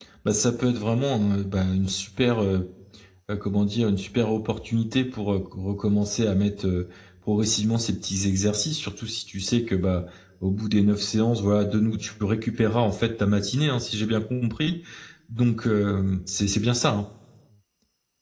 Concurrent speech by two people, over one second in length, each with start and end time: none

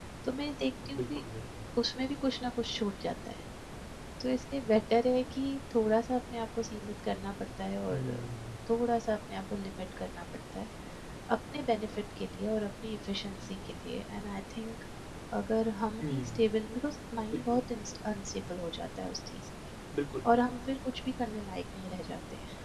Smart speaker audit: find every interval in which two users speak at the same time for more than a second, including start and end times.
none

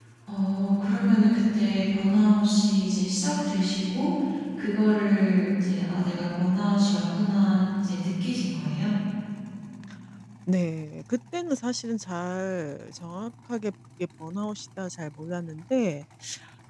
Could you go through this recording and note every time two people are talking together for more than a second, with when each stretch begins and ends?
none

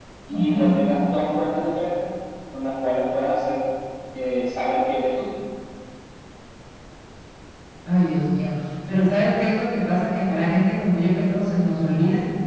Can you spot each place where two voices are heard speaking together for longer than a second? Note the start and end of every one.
none

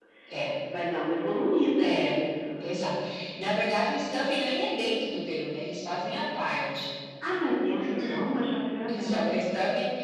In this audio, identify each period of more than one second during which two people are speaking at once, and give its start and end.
none

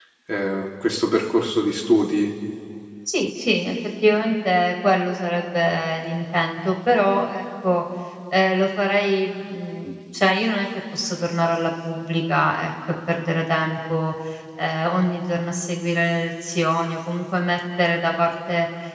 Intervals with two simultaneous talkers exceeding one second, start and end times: none

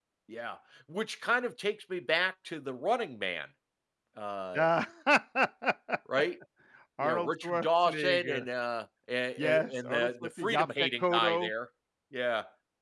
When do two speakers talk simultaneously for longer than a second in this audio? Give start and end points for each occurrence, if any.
7.0-8.4, 9.4-11.5

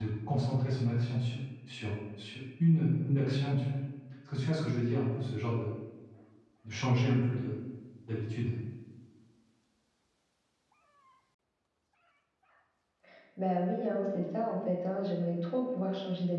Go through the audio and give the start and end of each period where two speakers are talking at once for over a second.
none

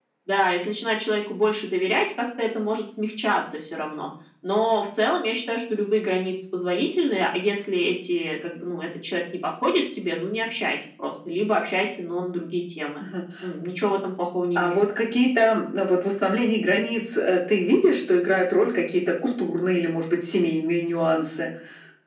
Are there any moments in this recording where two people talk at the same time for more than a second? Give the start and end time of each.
none

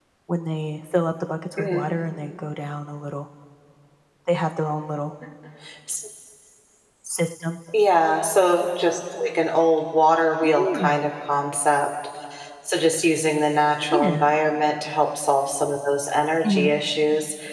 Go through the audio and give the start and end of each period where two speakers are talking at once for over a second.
none

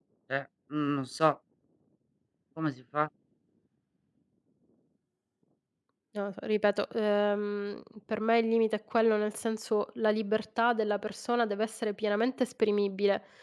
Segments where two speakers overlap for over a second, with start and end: none

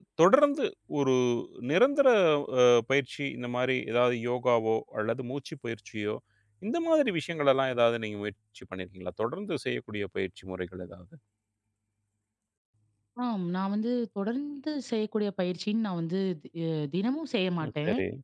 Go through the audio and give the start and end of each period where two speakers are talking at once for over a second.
none

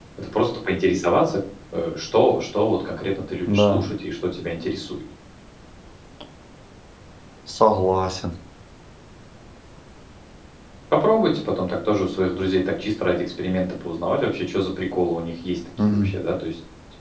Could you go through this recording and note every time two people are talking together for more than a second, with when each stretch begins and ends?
none

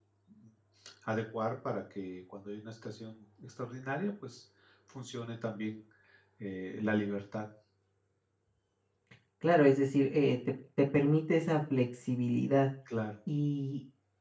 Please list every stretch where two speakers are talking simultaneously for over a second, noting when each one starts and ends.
none

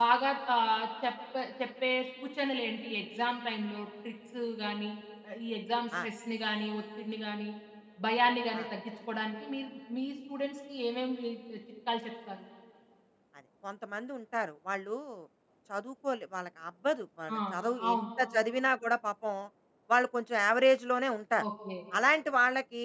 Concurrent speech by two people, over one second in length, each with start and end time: none

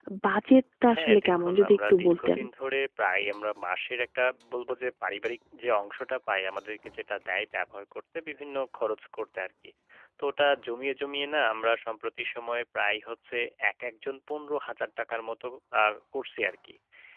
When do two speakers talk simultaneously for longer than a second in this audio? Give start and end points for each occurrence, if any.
0.9-2.4

